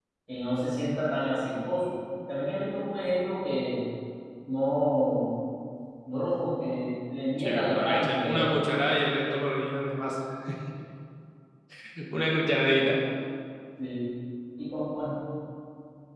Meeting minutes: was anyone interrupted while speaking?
Yes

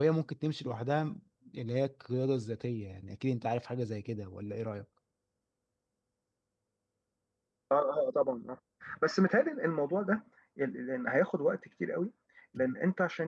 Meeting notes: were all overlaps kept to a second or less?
Yes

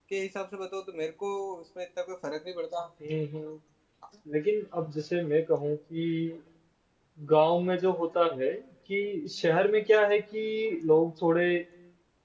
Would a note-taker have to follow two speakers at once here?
No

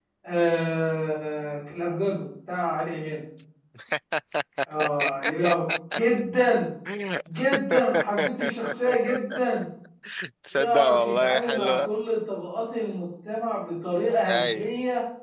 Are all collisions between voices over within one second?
No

